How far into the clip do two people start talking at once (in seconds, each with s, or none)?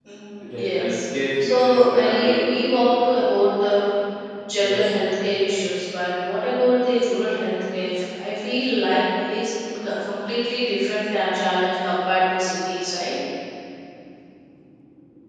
0.5 s